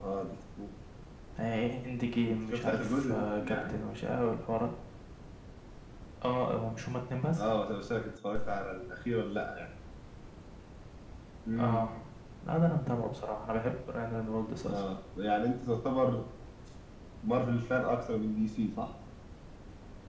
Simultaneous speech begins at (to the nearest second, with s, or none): 3 s